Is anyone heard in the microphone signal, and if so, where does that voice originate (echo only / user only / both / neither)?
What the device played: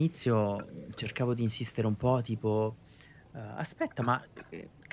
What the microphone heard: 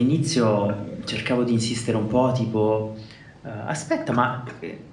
echo only